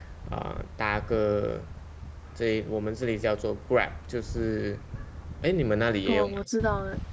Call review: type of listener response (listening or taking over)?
taking over